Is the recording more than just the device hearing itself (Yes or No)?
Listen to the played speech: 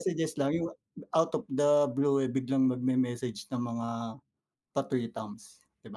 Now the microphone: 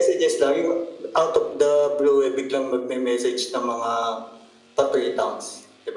No